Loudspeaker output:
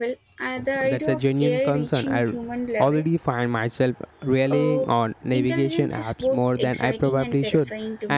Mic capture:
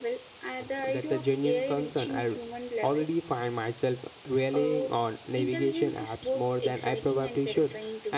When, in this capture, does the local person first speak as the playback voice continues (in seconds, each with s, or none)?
none